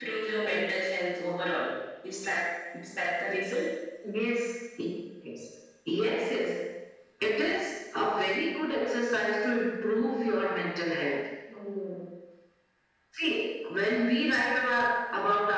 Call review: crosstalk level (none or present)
none